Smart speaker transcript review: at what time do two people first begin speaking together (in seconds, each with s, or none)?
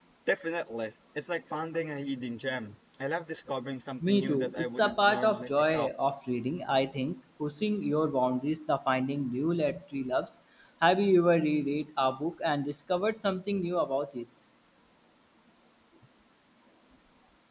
4.0 s